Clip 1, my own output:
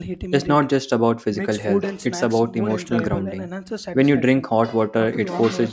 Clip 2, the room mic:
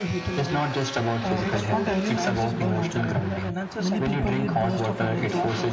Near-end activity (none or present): present